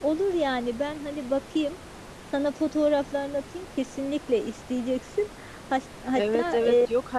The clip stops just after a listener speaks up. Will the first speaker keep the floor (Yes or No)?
No